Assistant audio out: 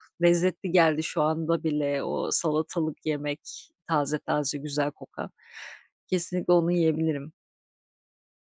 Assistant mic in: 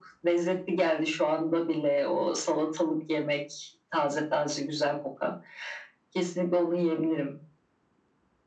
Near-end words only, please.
none

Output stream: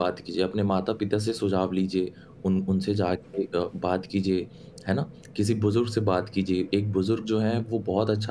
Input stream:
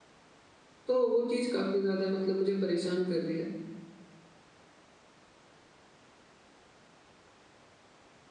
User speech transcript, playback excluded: तो वो चीज़ काफ़ी ज़्यादा मतलब मुझे परेशान कर रही है,

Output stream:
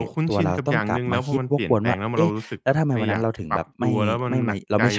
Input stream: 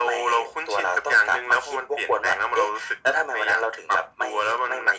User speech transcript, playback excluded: none

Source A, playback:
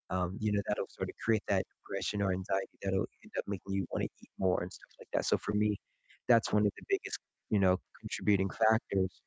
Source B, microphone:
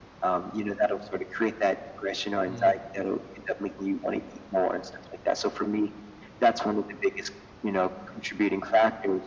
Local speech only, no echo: Mm.

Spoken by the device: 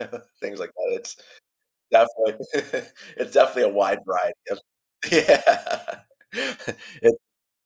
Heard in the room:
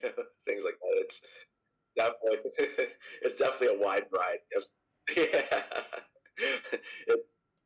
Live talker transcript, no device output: none

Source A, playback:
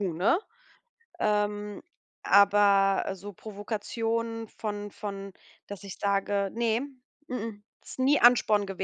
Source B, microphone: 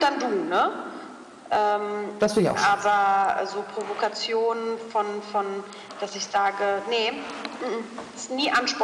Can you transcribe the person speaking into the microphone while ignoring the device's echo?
Das finde ich auch scheiße.

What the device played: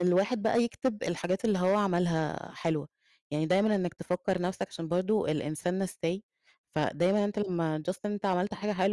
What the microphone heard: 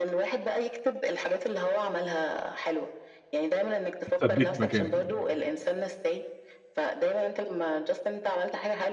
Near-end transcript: اتثبّتِ مكانِك.

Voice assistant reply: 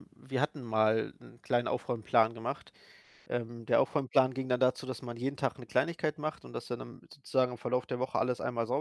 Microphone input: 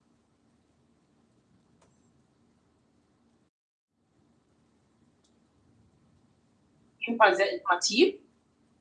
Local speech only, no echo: jeden Fall sehr informativ

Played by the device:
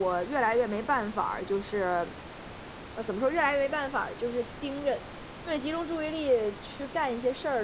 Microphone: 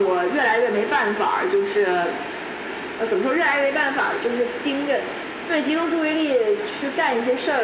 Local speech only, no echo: none

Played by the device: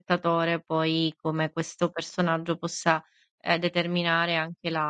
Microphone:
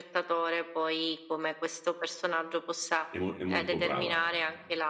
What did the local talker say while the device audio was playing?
È mo è molto brava.

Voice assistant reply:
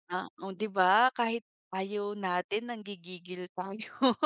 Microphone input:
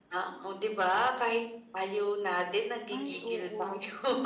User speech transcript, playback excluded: Ay, oo.

